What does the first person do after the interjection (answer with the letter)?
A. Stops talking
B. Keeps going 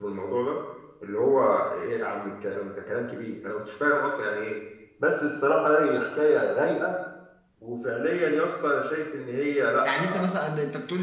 A